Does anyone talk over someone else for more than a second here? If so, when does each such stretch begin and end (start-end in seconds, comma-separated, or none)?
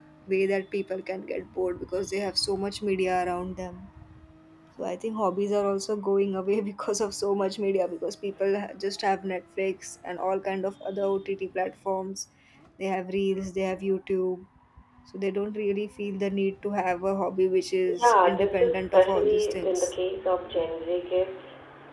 18.0-19.9